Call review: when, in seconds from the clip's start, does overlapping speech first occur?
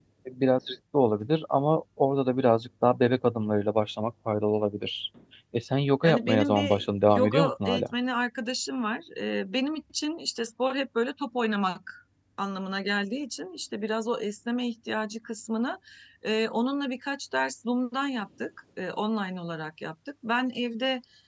6.0 s

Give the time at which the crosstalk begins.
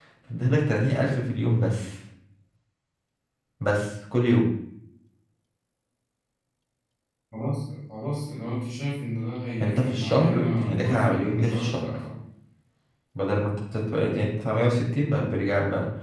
9.6 s

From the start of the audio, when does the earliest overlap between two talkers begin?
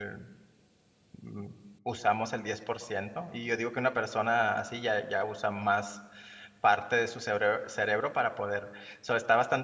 none

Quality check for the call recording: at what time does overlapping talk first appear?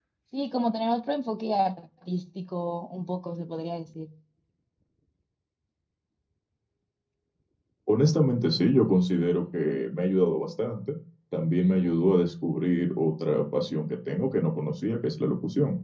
none

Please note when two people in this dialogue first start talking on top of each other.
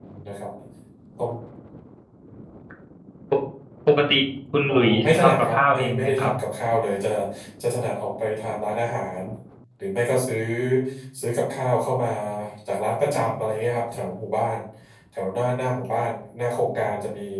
4.7 s

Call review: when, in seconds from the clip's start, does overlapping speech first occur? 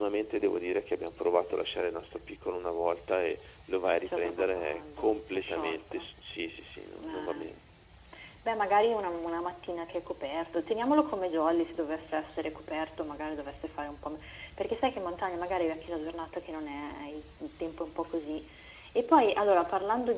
4.0 s

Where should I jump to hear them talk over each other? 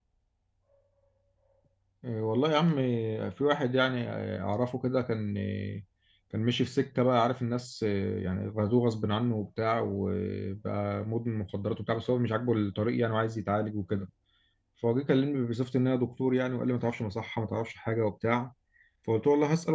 none

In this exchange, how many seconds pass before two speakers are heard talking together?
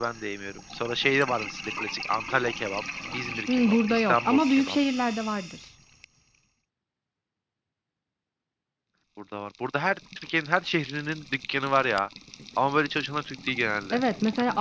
3.5 s

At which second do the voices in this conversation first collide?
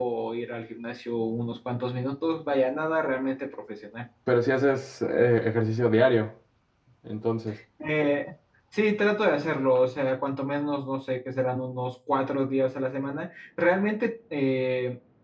none

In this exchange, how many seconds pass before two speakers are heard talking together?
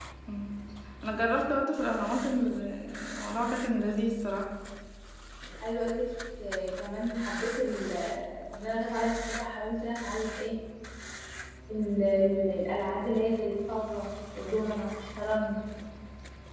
none

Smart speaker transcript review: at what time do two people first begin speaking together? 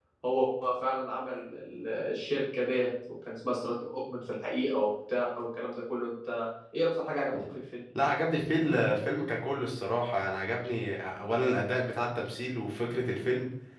none

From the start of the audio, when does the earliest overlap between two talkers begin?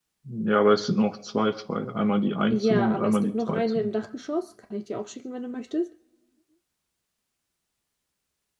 2.4 s

